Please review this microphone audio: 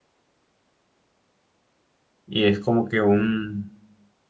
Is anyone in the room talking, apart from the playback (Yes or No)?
Yes